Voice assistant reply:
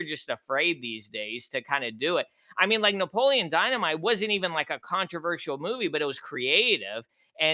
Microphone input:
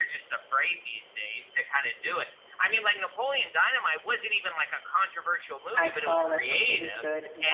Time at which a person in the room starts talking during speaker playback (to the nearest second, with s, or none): 6 s